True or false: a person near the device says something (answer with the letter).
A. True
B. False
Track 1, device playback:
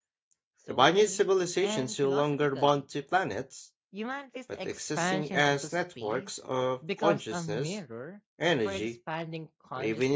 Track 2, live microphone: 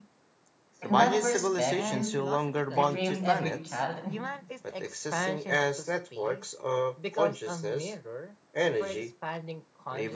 A